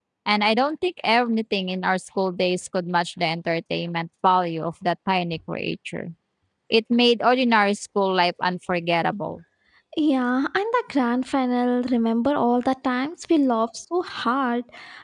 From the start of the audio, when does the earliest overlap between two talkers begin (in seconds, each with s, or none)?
none